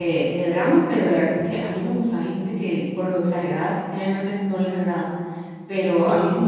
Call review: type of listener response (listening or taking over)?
listening